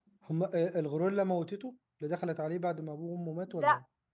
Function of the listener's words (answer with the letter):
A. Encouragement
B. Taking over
B